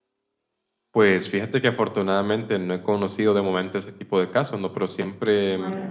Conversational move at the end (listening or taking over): listening